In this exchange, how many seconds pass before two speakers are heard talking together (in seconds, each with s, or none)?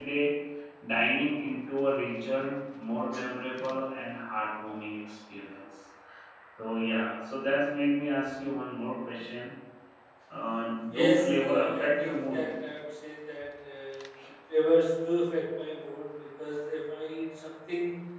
10.9 s